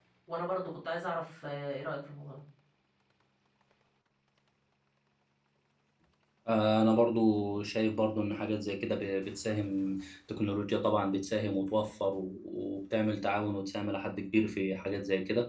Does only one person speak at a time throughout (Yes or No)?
Yes